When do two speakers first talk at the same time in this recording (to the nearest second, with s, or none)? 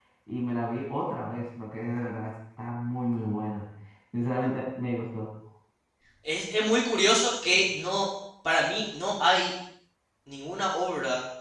none